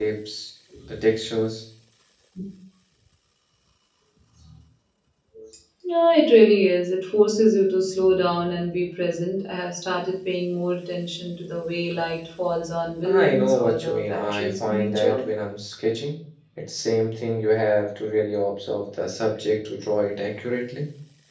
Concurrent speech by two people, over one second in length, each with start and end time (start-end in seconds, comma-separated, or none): 13.2-15.2